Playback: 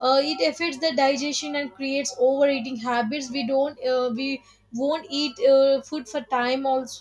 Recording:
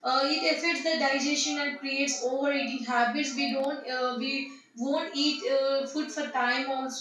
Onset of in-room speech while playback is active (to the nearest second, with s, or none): none